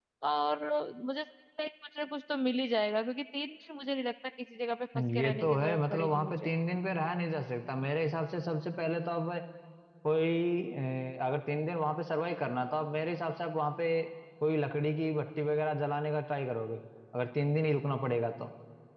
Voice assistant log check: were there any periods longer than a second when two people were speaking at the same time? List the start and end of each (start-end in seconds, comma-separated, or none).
5.1-6.5